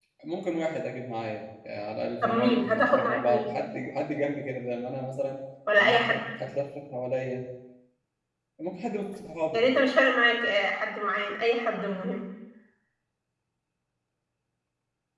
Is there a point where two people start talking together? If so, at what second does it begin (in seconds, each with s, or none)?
2.2 s